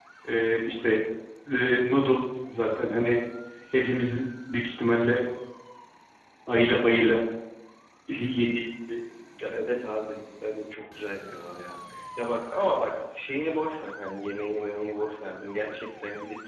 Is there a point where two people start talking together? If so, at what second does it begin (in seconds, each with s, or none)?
none